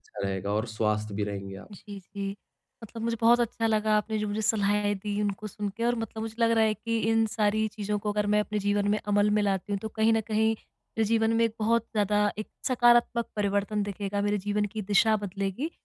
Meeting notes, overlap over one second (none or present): none